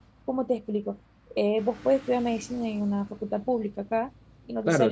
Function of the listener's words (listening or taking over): taking over